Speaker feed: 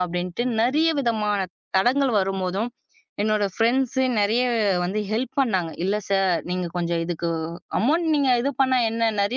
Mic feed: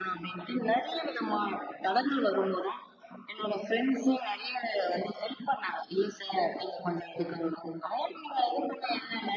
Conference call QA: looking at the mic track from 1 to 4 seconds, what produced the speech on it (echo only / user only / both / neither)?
echo only